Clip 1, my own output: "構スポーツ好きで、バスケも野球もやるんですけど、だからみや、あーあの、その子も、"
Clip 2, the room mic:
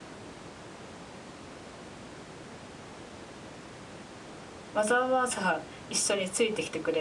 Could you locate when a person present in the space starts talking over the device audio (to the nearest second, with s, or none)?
5 s